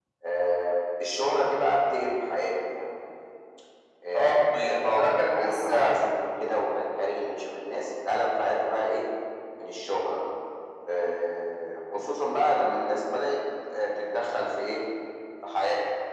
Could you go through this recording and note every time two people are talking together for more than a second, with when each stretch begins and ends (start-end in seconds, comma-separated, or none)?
4.1-6.0